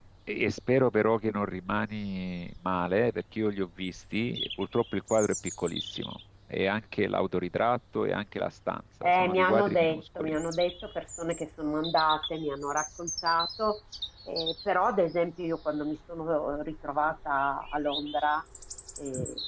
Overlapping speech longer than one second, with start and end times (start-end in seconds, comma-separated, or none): 9.0-10.4